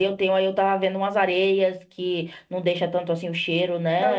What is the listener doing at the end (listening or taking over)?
taking over